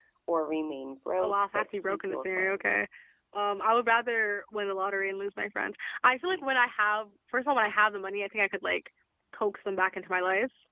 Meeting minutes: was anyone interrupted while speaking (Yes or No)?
Yes